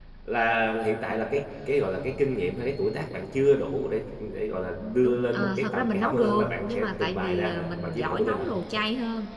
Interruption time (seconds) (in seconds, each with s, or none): 5.0 s